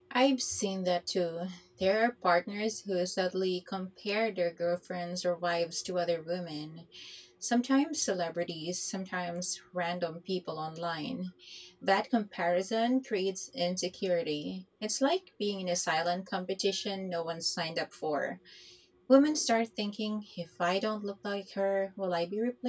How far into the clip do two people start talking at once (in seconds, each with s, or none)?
none